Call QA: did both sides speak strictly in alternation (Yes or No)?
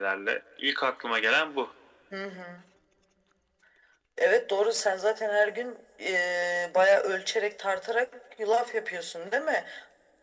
Yes